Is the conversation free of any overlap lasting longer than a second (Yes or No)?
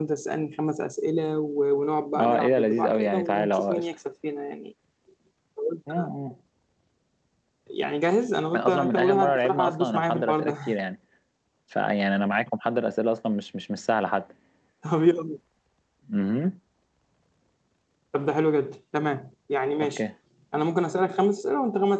No